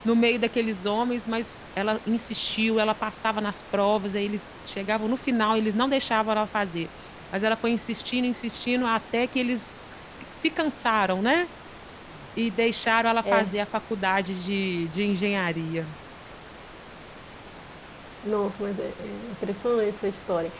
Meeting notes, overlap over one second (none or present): none